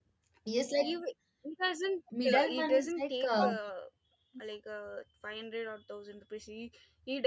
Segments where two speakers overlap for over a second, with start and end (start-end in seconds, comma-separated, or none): 2.2-3.5